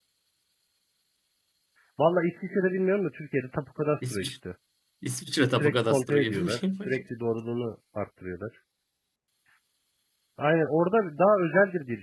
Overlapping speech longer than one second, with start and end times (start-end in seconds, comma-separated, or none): 5.5-7.0